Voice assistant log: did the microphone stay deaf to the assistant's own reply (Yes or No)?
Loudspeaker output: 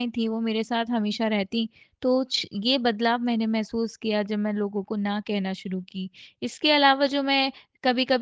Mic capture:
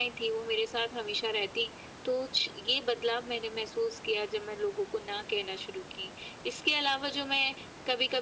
No